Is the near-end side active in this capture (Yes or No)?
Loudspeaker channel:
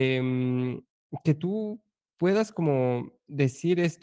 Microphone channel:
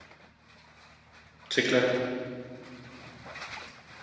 Yes